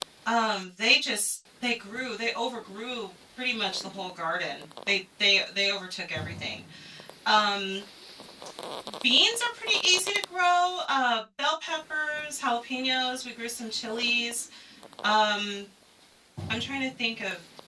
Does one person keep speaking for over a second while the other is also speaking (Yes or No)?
No